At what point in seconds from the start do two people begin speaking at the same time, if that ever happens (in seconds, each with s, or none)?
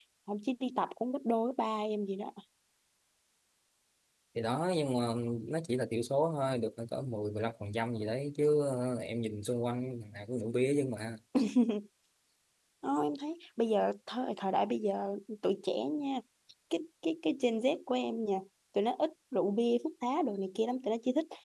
none